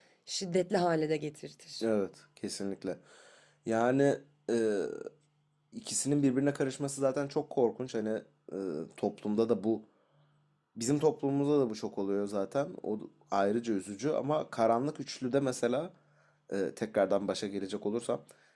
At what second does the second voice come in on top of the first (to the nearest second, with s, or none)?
none